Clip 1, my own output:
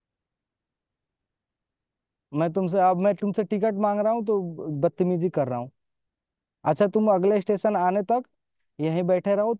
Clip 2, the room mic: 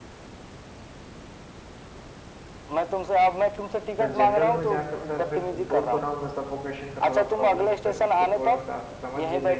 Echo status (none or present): present